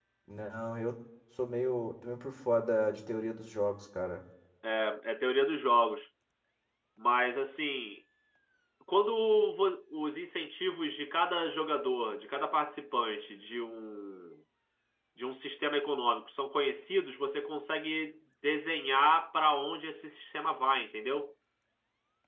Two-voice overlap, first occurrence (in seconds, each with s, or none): none